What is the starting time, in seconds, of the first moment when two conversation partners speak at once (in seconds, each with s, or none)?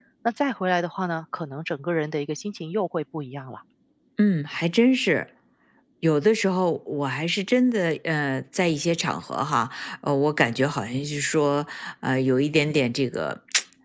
none